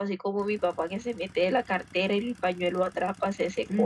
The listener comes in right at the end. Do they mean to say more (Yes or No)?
Yes